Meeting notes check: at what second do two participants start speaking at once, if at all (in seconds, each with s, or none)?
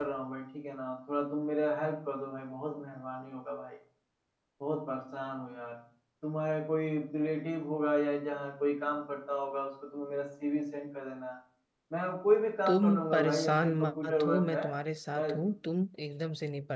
12.7 s